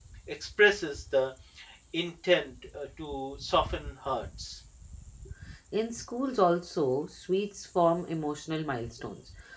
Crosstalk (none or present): none